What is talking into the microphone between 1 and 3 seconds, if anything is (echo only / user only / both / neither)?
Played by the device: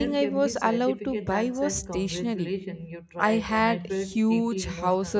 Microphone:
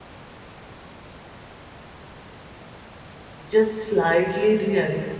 neither